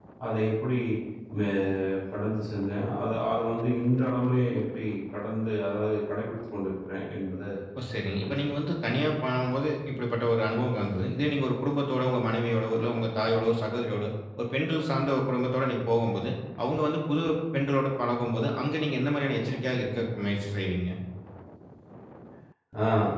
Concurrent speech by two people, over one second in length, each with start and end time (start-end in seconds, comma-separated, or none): none